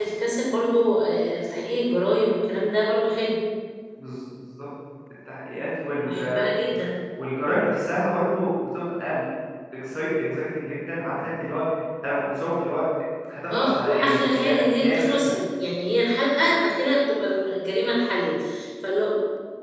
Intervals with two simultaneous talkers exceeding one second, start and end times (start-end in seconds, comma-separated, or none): 13.5-15.3